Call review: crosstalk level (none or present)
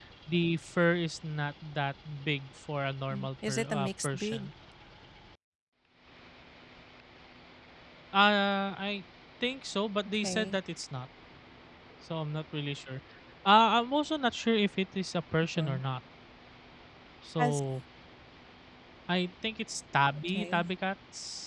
present